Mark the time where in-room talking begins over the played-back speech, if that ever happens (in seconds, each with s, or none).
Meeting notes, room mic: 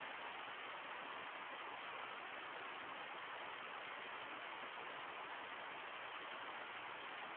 none